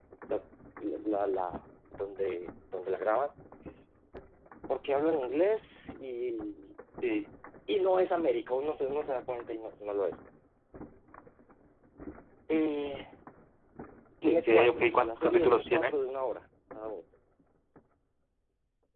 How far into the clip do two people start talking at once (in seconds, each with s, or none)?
14.2 s